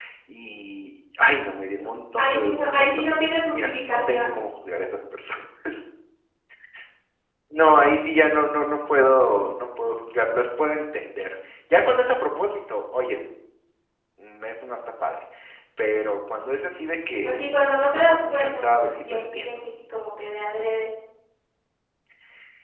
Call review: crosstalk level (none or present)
present